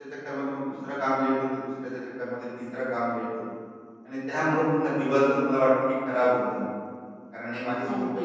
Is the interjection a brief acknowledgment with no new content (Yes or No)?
Yes